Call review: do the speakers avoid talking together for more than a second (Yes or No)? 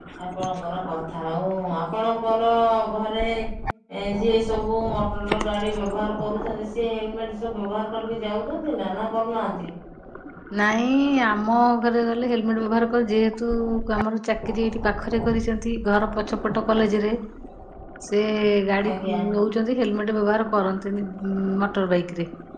Yes